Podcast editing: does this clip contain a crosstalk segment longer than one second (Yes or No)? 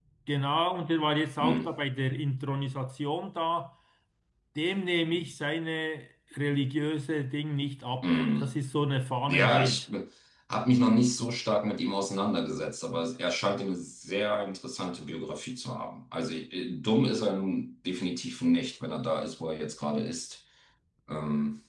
No